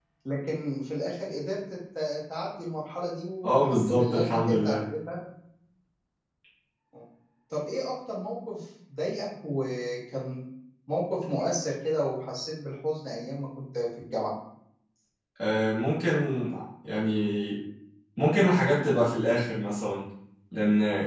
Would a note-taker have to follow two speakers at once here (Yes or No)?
Yes